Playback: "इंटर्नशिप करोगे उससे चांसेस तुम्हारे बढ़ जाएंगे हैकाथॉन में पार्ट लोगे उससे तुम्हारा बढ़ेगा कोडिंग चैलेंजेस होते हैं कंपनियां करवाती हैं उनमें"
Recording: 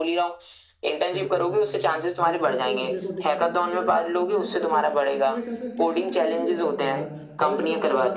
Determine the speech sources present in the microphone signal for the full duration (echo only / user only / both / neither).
both